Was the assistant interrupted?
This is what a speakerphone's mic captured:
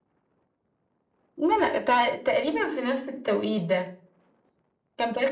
No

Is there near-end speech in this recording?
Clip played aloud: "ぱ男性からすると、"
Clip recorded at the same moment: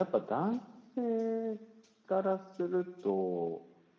No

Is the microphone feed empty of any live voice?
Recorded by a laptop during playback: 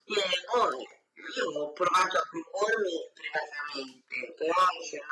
Yes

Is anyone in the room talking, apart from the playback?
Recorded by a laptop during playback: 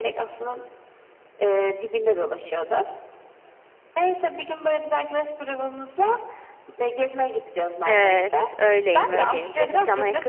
Yes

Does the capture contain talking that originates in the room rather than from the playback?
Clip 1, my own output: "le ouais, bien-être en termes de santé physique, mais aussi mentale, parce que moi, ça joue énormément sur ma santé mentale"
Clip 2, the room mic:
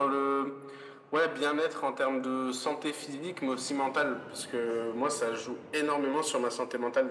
No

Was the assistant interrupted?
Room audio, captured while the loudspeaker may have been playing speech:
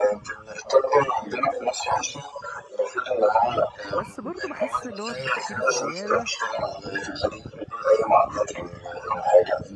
Yes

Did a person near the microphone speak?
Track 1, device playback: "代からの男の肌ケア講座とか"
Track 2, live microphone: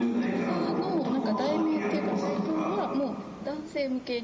Yes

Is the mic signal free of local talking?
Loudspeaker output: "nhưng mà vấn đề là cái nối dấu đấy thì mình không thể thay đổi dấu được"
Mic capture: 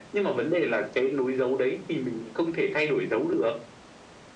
Yes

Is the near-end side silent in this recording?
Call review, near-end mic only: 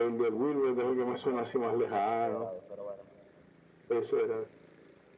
No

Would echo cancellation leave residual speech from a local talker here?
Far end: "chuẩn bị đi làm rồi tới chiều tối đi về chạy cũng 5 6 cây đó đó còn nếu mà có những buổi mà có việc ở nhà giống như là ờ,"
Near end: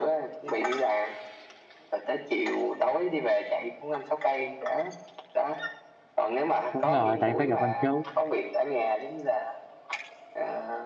Yes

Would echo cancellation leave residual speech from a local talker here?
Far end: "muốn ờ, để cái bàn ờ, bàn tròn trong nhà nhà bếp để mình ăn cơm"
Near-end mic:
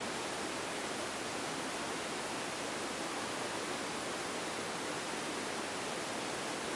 No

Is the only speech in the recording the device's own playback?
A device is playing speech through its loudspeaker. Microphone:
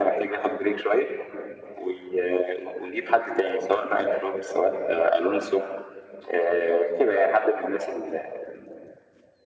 Yes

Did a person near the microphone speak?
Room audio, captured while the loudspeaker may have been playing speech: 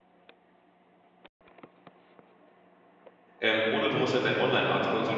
Yes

